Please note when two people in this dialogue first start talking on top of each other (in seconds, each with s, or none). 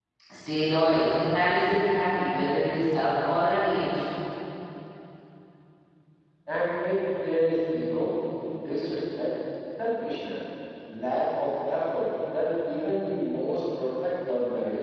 none